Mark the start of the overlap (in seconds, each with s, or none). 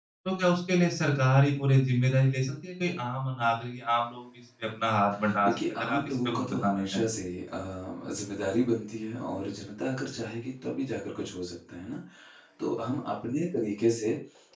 5.2 s